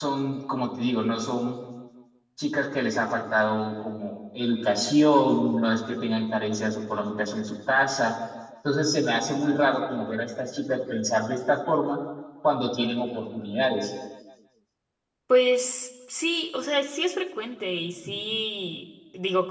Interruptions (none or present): none